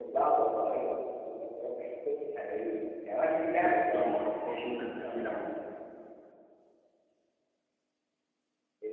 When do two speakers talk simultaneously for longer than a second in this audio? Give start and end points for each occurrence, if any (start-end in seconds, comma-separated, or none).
3.9-5.4